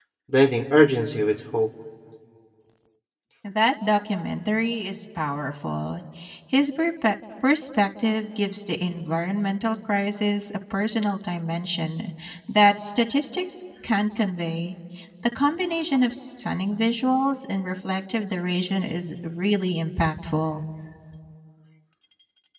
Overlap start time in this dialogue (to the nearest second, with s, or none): none